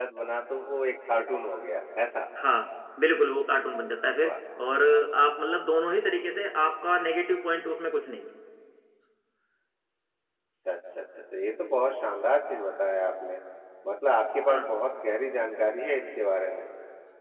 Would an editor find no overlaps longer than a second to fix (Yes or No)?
Yes